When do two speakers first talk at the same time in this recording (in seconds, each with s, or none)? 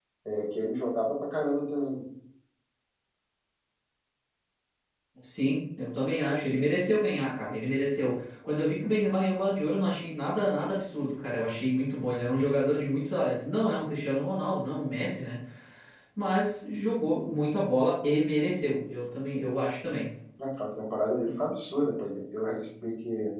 none